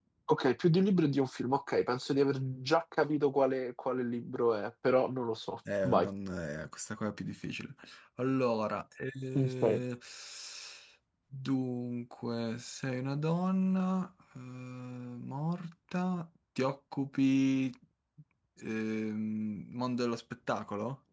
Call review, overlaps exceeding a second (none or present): none